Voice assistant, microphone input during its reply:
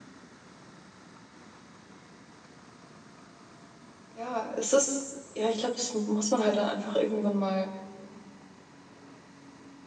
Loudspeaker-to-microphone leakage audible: No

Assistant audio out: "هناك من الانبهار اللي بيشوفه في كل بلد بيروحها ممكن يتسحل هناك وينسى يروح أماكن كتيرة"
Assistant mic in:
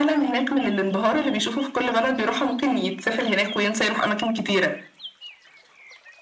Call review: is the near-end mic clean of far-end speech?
No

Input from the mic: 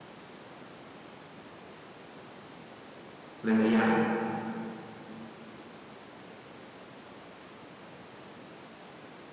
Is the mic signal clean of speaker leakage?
Yes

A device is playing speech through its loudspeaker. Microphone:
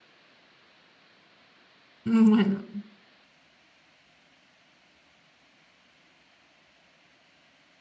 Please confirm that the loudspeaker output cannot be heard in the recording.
Yes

